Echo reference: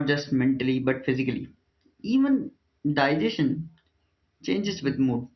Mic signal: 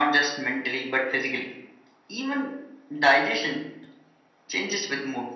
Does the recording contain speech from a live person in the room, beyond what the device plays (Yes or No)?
No